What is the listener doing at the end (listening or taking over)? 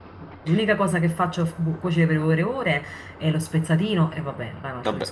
taking over